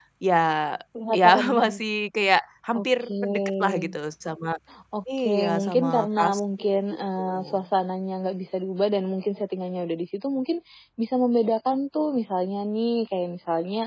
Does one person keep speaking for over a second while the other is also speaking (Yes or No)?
Yes